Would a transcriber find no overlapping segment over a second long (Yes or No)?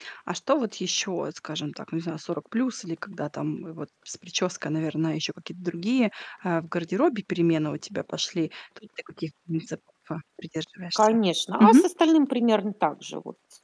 Yes